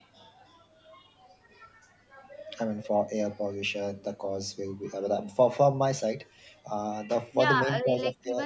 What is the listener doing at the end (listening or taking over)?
taking over